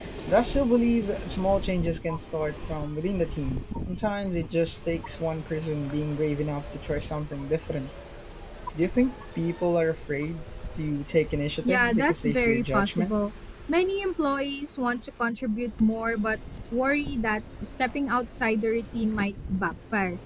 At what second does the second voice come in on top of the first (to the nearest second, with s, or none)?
12 s